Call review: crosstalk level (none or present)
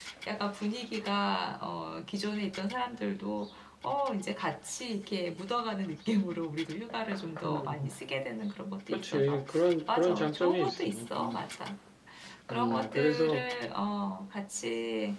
present